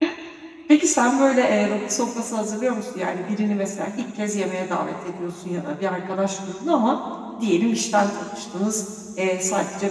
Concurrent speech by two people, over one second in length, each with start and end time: none

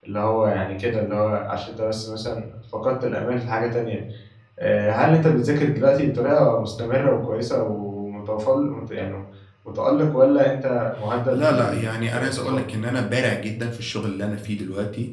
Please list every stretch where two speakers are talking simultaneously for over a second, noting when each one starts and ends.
11.3-12.7

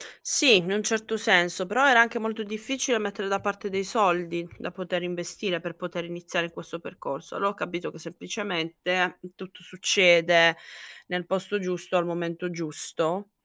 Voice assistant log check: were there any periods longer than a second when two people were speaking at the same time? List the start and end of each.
none

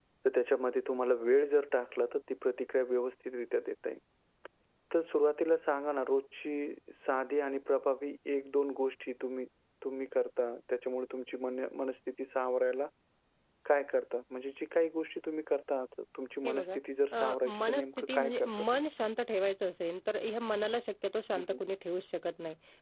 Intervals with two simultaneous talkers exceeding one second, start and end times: 17.1-18.9

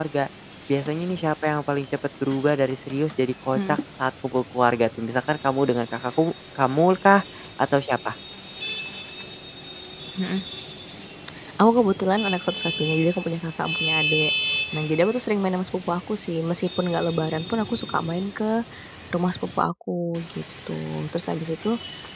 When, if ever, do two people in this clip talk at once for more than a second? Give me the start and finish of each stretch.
none

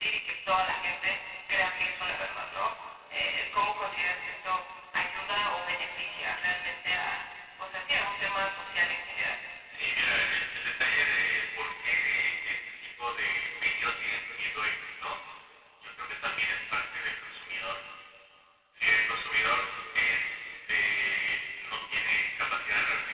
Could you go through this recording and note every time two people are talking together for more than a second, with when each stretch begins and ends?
none

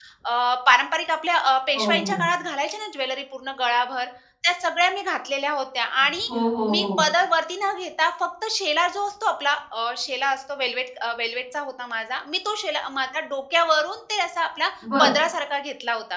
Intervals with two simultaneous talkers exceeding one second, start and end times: none

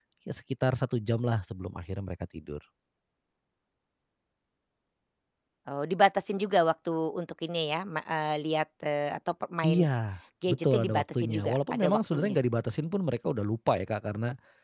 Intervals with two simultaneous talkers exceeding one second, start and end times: 10.5-12.4

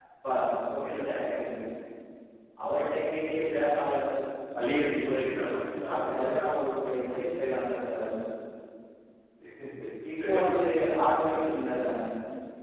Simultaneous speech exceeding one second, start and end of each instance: none

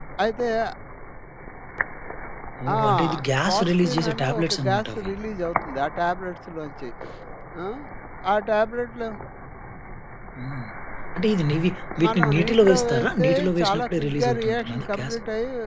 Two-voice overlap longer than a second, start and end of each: 3.5-5.1, 12.0-15.2

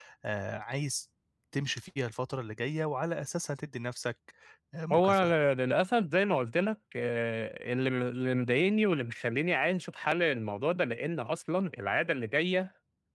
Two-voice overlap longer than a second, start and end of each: none

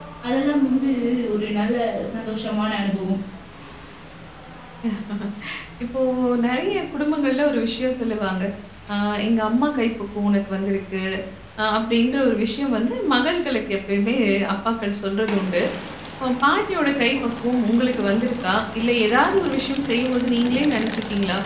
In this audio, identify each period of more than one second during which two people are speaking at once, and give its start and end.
none

